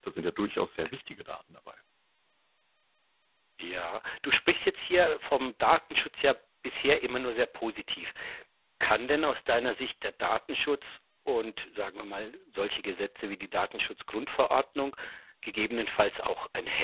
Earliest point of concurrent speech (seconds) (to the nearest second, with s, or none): none